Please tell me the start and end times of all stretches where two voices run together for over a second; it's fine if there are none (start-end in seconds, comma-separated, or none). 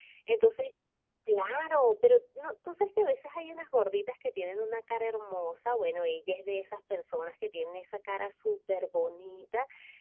none